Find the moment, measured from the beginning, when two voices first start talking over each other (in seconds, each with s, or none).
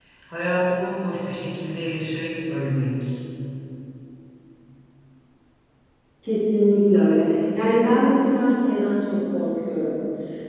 none